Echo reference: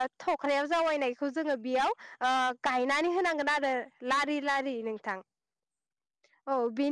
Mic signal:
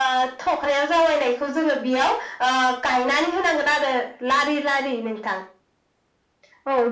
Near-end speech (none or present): none